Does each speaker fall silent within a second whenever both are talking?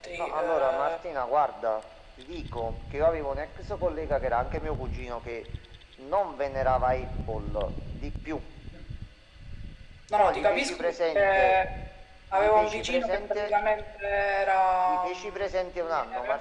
No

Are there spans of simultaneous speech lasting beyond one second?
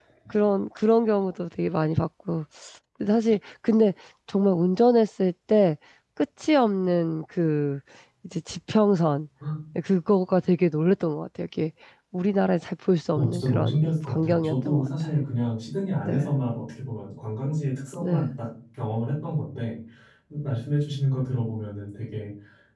Yes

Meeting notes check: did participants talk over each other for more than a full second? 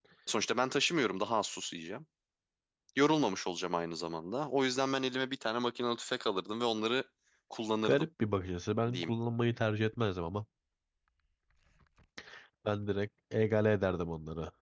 No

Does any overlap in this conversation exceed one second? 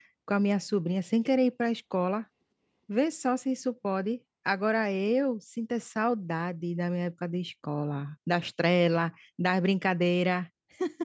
No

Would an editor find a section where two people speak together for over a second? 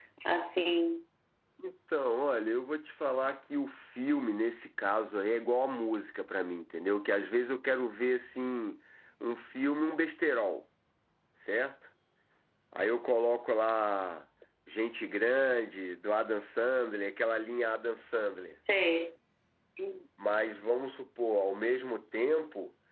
No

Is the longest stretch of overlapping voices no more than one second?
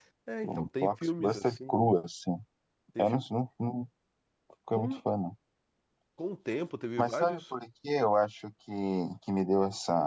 No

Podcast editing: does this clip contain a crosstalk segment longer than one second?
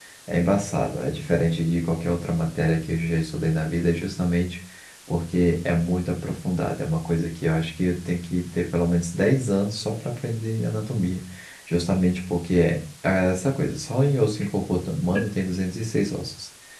No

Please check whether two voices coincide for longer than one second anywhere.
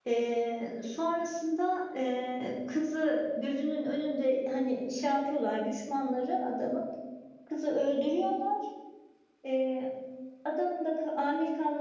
No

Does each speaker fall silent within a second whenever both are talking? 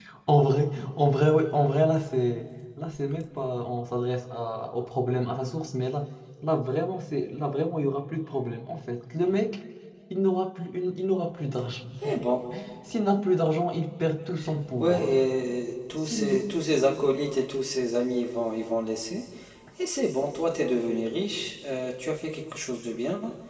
Yes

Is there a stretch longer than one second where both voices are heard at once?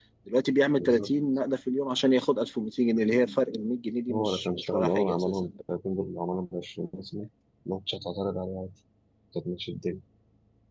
Yes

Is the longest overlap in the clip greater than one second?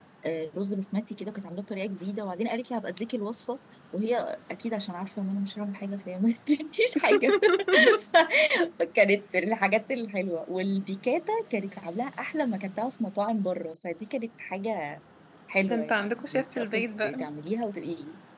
Yes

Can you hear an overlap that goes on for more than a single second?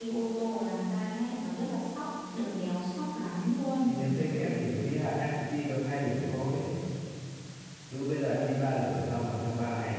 No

